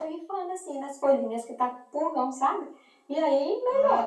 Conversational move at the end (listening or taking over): taking over